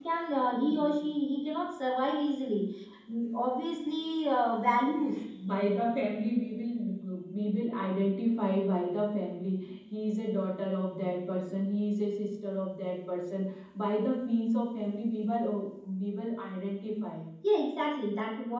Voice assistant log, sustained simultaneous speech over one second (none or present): none